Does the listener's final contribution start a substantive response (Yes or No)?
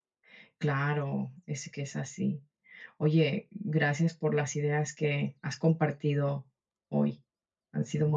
Yes